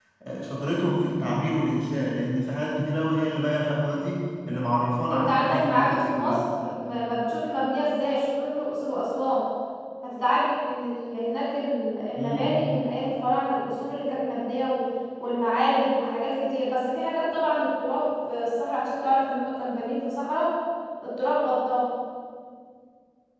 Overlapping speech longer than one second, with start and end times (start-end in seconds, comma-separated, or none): 5.1-6.4